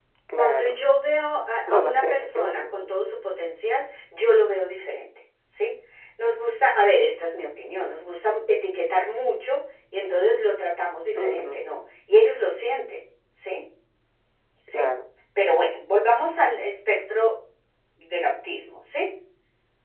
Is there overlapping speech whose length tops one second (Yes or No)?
Yes